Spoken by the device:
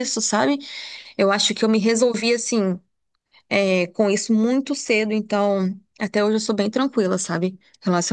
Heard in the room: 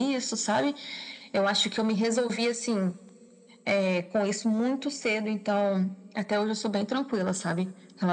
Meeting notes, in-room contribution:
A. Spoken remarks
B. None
B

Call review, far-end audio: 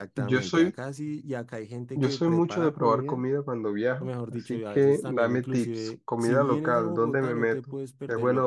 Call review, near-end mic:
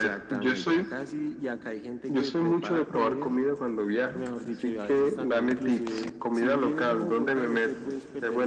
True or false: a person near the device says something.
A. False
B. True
A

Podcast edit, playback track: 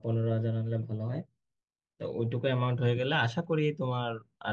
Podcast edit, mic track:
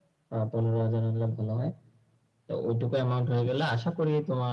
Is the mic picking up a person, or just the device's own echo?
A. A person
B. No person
B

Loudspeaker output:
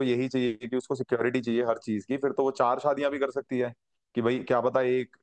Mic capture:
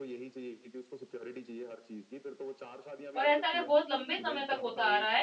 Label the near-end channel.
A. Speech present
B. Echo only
A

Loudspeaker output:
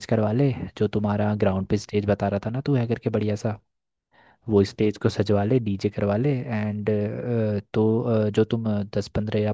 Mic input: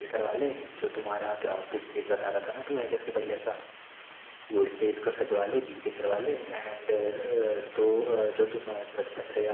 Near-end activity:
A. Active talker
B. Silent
B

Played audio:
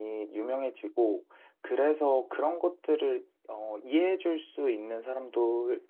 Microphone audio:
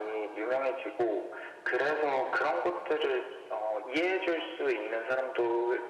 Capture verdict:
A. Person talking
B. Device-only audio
B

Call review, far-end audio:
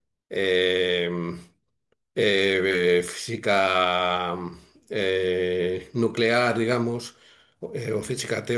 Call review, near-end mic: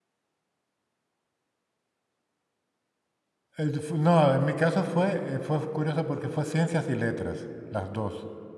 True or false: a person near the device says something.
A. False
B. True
B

